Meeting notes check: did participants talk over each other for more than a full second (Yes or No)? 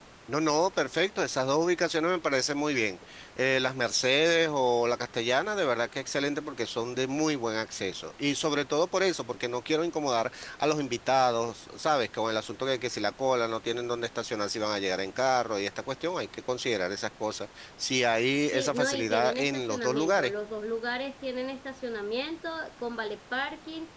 Yes